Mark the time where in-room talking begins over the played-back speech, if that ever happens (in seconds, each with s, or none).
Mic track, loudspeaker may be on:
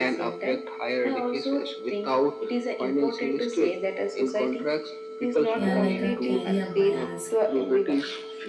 5.6 s